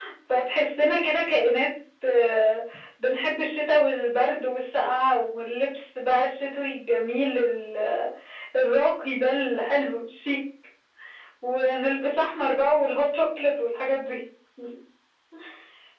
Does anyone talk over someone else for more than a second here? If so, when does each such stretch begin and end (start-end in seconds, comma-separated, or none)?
none